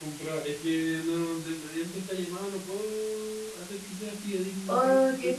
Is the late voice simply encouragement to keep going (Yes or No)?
No